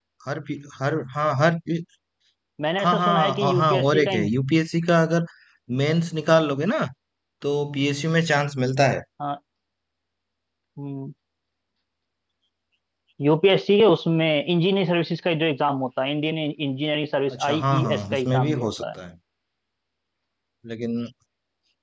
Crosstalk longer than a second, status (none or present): present